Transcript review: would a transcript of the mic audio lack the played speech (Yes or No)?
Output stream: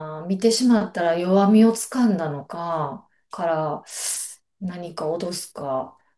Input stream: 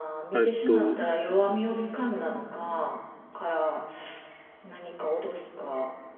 No